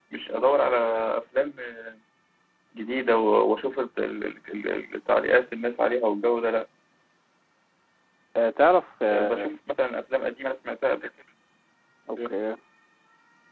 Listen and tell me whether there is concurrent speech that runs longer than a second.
No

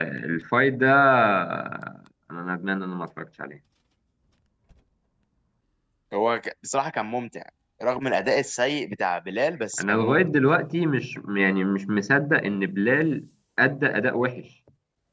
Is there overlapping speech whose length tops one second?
No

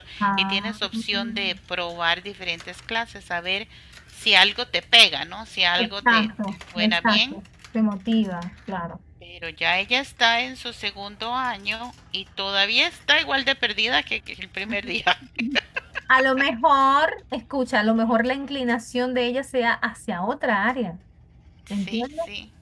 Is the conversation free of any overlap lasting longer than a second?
No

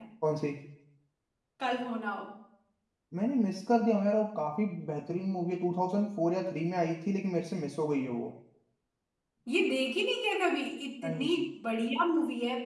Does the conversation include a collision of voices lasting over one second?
No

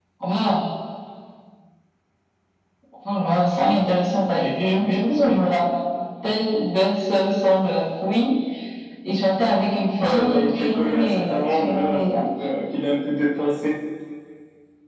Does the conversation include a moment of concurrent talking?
Yes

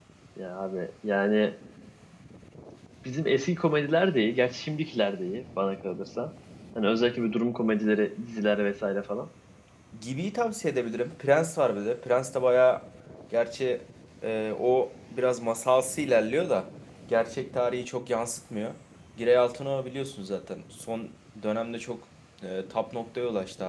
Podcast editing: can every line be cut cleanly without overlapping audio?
Yes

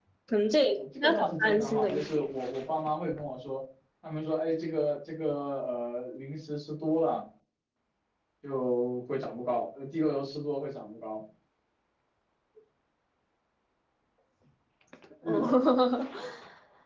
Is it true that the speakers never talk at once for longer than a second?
No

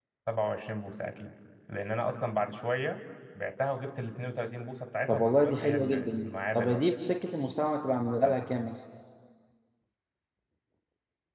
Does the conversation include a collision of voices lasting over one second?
Yes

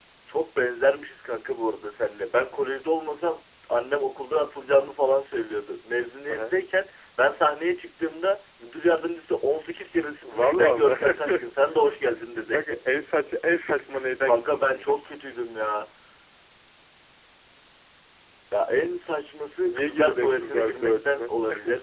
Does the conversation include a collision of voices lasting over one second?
Yes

